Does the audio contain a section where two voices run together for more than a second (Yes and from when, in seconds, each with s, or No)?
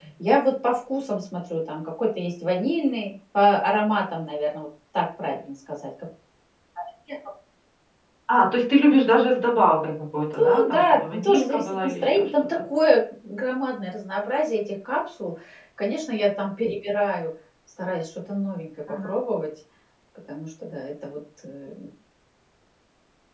Yes, from 10.4 s